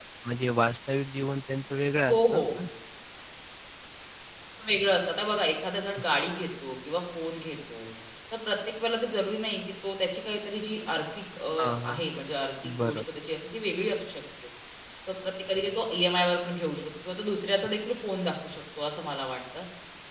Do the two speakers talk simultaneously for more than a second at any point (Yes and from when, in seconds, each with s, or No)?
No